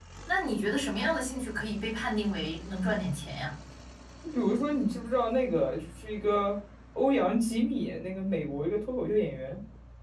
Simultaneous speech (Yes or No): No